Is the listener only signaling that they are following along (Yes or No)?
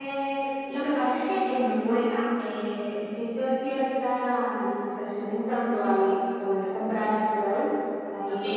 Yes